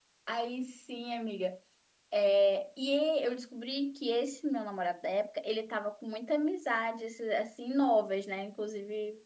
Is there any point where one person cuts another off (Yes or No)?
No